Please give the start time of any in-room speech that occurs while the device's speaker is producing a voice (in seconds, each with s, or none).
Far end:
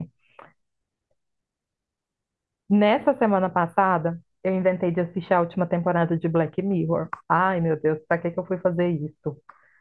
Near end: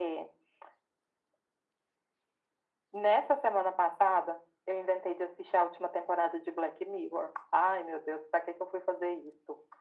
none